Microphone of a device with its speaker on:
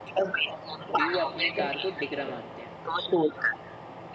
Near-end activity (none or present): present